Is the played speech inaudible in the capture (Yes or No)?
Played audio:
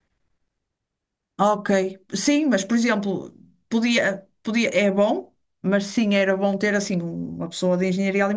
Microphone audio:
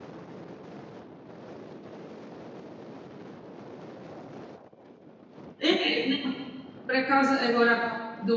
Yes